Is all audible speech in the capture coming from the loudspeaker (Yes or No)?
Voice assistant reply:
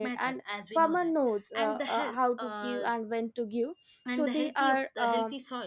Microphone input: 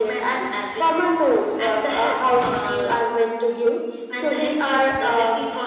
Yes